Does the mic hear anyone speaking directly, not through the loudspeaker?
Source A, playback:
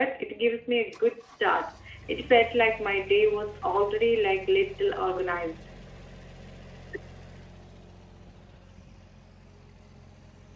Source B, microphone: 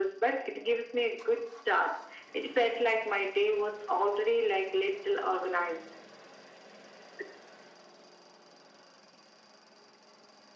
No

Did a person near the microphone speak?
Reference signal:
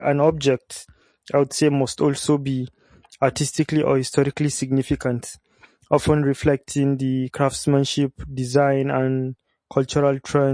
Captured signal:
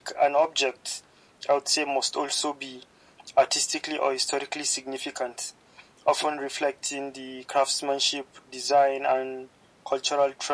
No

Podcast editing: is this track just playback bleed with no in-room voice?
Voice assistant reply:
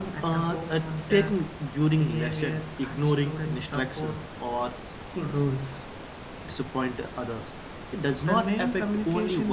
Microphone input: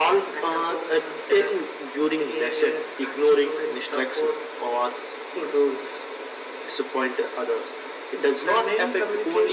Yes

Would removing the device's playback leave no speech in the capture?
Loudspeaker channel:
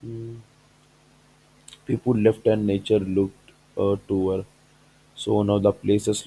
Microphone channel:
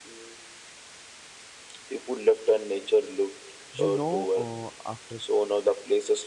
No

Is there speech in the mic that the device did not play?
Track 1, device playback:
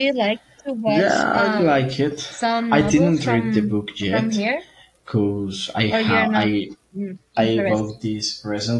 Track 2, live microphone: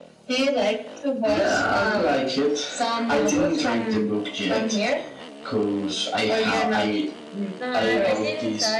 Yes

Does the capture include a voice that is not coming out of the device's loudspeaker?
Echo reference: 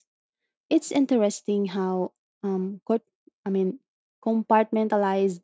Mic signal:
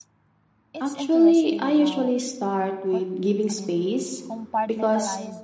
Yes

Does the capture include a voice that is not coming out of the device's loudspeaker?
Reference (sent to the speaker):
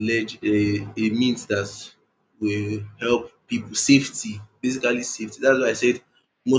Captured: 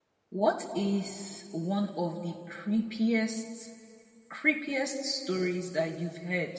Yes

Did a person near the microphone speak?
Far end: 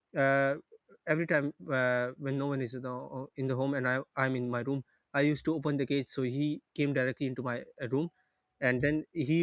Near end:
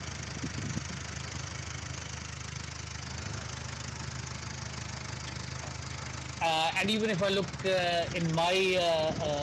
Yes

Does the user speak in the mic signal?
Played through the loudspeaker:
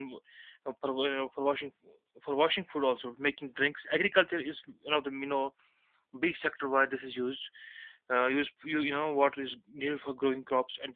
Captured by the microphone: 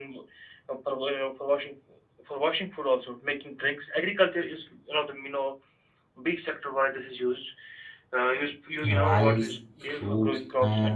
Yes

